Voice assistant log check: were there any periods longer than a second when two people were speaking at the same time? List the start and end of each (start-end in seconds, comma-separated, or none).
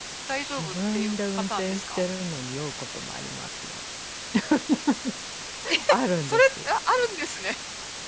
0.5-2.0